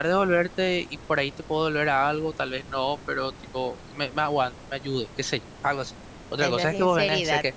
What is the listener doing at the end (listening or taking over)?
listening